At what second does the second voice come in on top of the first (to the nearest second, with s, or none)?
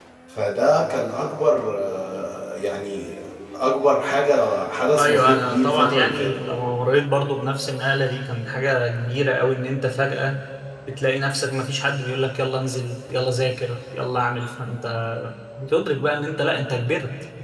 5 s